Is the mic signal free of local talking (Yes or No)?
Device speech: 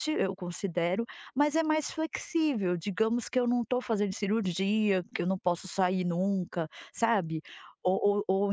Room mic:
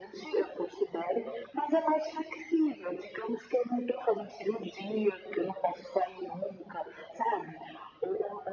Yes